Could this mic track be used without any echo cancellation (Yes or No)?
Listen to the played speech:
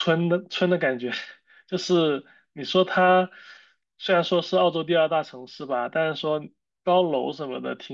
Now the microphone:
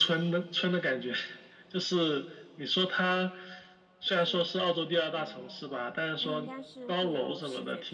No